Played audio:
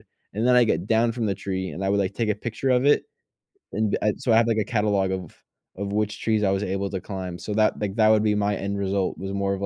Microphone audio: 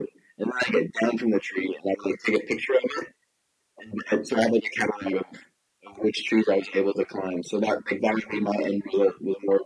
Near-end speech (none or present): none